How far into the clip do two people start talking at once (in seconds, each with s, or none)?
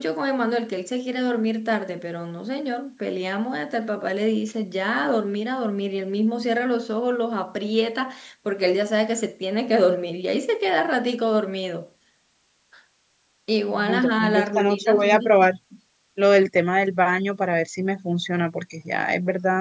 13.7 s